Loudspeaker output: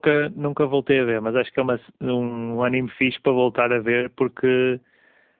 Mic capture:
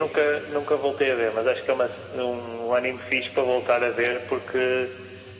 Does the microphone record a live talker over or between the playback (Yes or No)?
No